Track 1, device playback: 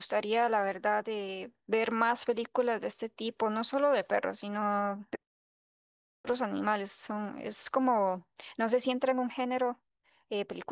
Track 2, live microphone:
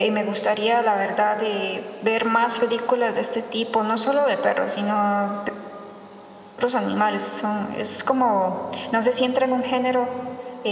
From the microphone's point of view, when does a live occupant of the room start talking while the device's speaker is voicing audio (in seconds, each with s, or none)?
none